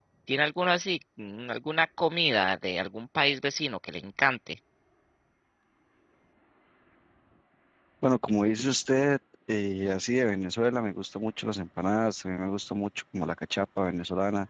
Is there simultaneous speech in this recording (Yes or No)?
No